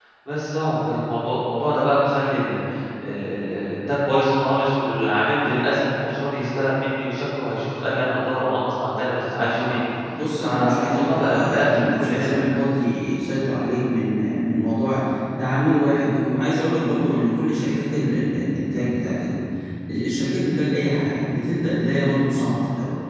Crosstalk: present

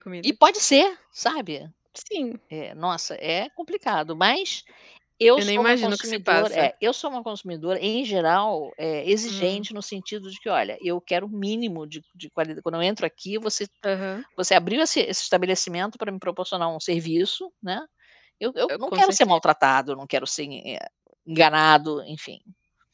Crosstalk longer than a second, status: present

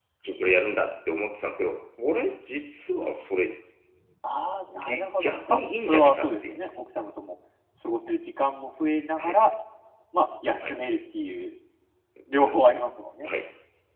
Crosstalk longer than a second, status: present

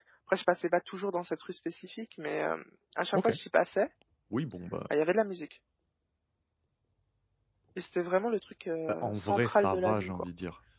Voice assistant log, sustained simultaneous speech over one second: present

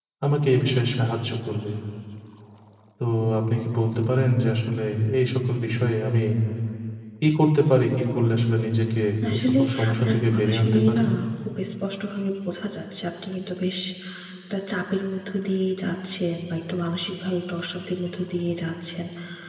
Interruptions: present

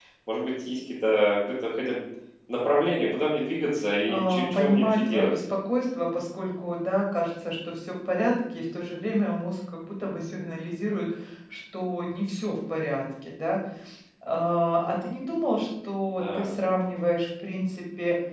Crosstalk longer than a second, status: present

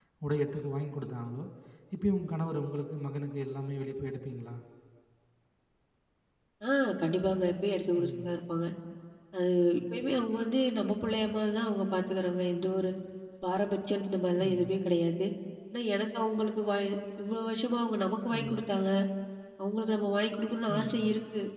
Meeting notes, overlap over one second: none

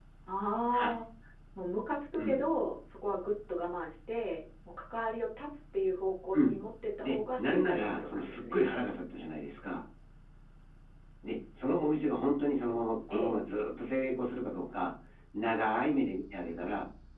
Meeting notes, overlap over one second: present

